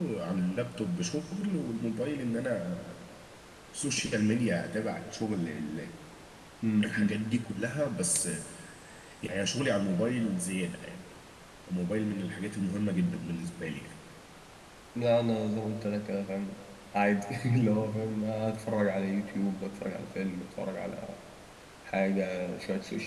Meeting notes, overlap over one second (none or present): none